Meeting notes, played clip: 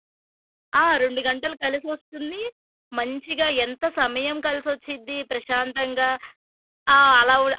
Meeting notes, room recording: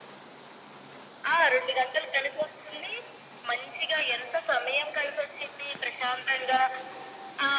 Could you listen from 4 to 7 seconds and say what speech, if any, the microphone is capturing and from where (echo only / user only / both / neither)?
echo only